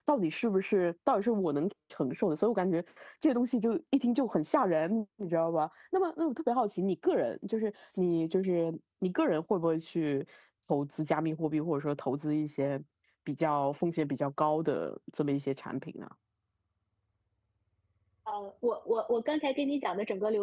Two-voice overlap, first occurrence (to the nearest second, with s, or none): none